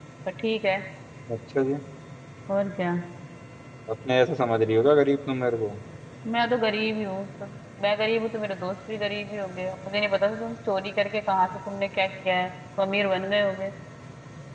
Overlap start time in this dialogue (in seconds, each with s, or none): none